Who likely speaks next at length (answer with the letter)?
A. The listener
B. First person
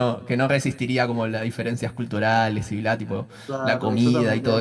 A